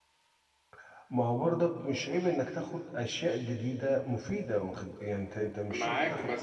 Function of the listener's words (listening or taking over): taking over